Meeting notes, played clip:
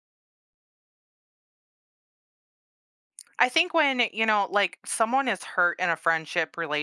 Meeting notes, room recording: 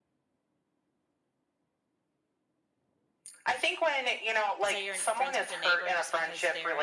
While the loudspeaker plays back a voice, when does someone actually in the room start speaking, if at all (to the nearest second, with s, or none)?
5 s